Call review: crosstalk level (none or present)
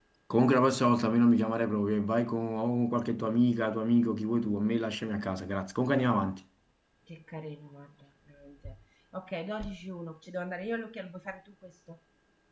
none